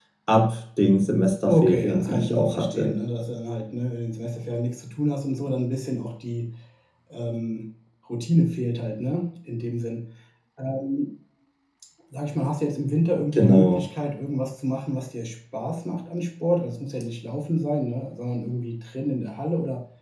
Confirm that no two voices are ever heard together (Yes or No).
No